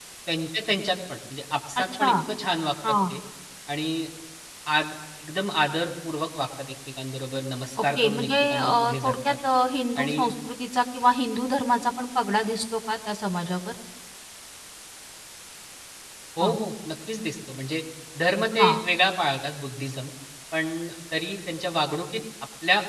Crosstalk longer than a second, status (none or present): present